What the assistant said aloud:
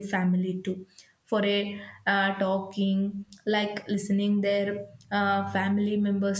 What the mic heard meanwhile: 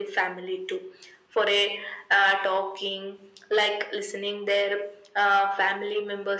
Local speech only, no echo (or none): none